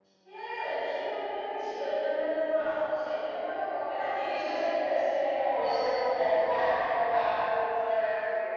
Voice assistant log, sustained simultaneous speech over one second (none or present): none